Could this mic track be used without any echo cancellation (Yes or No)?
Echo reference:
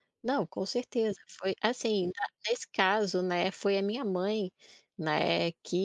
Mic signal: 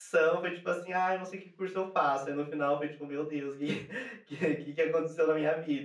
Yes